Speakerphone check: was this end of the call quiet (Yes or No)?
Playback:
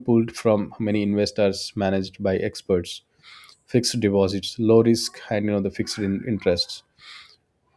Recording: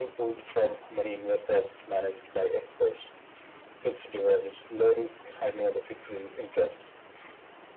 Yes